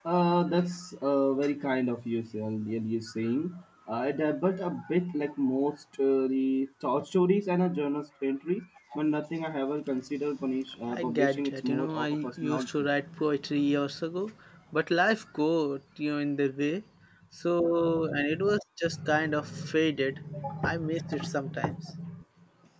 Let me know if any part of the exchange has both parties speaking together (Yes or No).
Yes